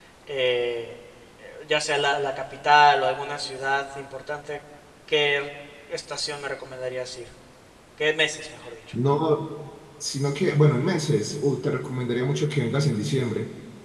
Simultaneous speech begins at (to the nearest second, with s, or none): none